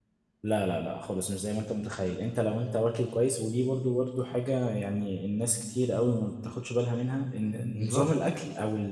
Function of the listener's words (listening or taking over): listening